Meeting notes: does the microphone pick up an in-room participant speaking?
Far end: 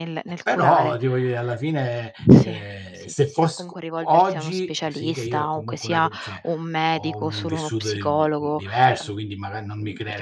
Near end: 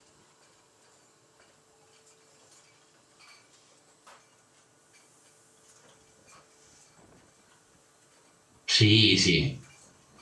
Yes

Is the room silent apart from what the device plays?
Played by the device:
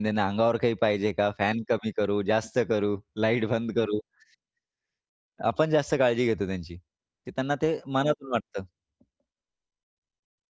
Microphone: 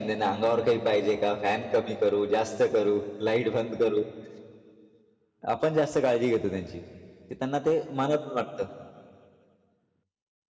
Yes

